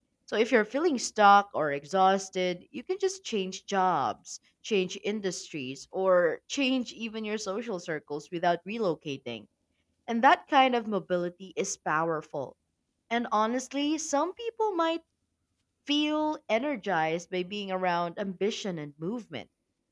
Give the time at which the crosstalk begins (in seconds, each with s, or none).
none